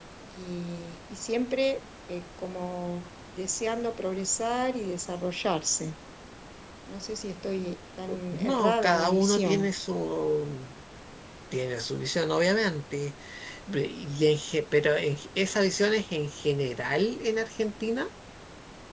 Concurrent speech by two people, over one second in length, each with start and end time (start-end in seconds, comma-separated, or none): 8.3-9.7